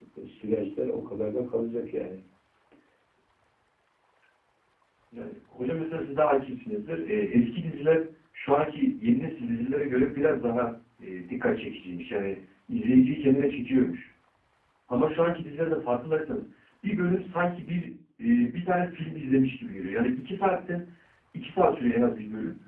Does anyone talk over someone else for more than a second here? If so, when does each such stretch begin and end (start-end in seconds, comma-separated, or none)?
none